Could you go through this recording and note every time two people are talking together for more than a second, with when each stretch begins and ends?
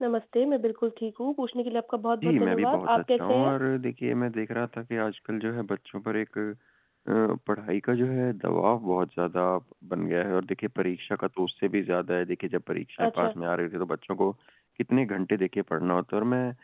2.2-3.5

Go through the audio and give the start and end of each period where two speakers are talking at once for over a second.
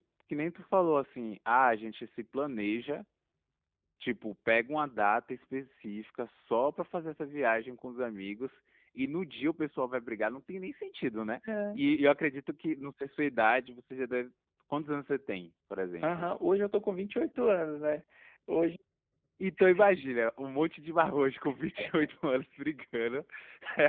none

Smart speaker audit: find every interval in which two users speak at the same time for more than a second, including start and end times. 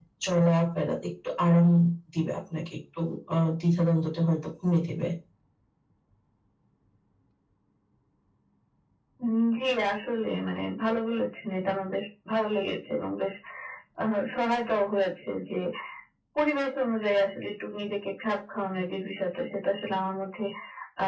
none

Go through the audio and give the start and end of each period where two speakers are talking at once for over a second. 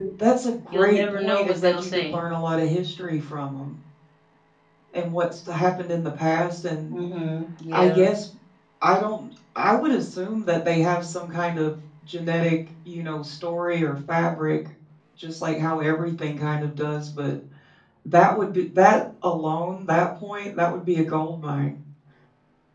0.7-2.1

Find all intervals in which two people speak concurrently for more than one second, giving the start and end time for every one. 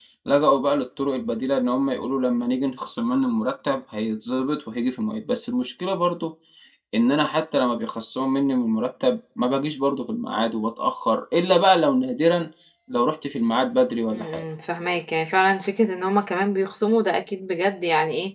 none

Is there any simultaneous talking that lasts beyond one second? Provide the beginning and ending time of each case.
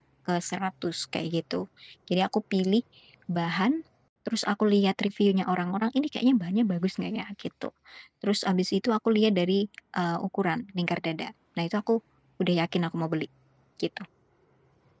none

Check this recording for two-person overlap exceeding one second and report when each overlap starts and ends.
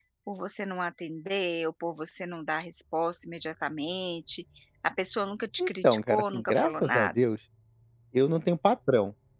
5.6-7.1

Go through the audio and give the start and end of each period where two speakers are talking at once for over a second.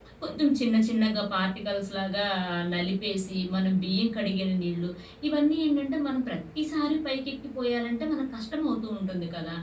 none

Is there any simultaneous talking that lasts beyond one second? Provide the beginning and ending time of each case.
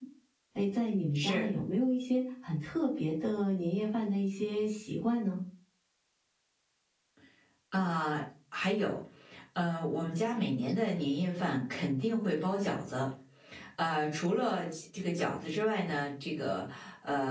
none

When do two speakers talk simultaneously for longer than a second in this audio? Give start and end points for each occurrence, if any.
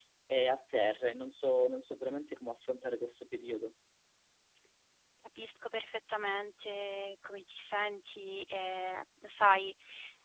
none

